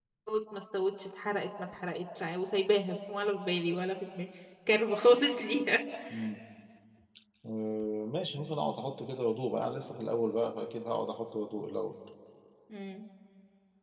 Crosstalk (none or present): none